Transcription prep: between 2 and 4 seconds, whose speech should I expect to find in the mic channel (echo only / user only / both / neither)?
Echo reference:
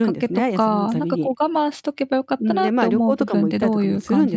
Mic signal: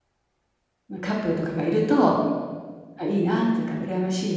user only